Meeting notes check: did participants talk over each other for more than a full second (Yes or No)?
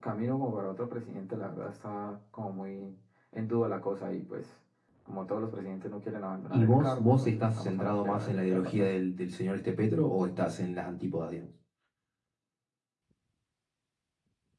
Yes